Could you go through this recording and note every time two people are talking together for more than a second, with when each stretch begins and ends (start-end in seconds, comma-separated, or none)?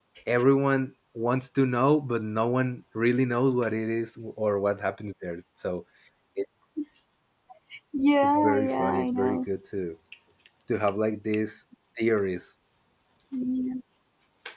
8.2-9.4